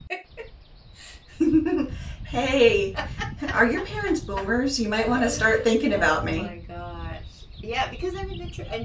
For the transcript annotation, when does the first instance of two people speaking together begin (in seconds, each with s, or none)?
5.0 s